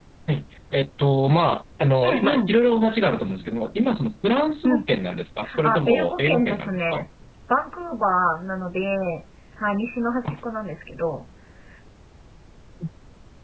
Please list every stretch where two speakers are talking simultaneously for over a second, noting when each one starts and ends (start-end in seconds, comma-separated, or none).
5.6-7.0